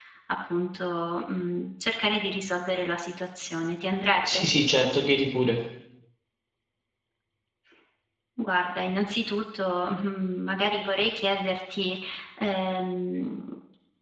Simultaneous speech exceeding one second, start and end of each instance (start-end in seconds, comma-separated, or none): none